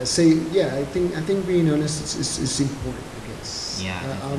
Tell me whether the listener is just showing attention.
Yes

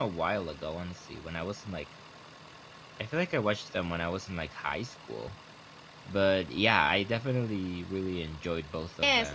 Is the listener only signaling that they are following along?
No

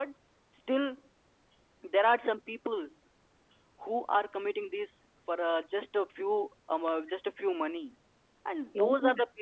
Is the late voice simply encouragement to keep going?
Yes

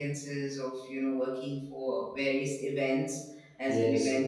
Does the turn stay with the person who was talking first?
Yes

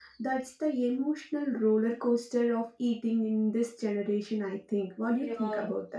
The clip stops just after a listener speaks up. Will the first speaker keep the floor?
No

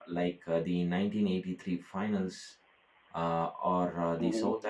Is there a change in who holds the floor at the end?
No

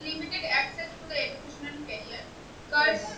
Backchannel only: Yes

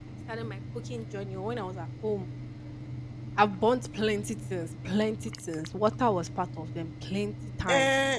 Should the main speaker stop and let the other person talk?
Yes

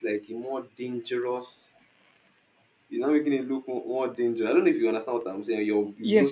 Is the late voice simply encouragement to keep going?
No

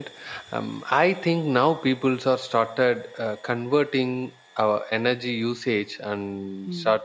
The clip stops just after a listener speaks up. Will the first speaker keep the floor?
Yes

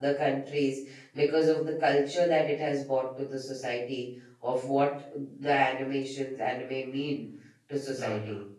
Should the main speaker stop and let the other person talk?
Yes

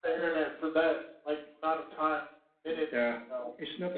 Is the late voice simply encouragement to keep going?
No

